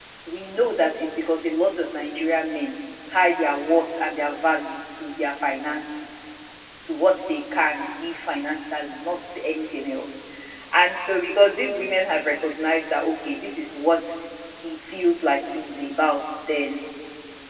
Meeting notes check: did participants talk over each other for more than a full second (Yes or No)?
No